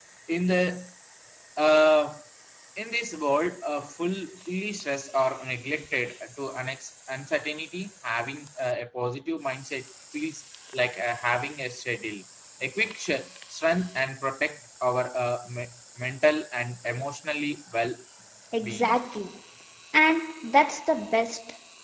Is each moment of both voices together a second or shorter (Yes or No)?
Yes